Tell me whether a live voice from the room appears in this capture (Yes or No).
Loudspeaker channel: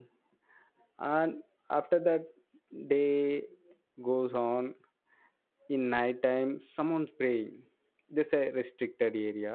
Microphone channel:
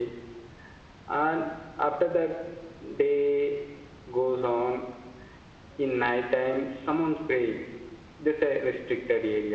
No